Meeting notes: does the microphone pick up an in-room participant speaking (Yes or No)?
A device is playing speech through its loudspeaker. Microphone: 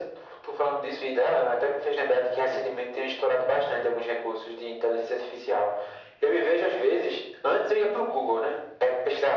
No